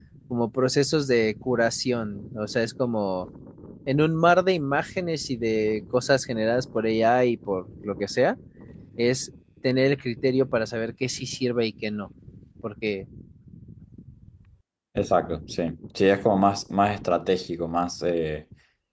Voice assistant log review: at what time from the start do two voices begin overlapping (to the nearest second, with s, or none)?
none